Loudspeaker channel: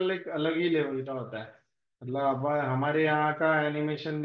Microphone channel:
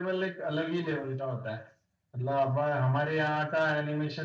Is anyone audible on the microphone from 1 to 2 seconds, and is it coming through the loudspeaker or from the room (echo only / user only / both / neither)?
echo only